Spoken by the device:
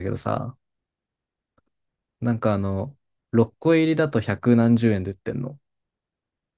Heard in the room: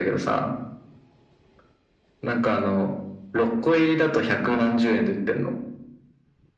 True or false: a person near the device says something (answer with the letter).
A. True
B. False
B